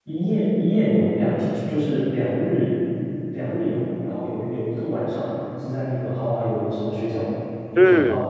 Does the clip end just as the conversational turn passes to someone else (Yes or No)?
Yes